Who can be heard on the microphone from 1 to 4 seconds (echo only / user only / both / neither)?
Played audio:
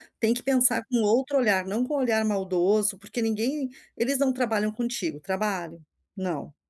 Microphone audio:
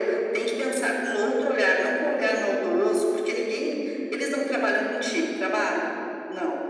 echo only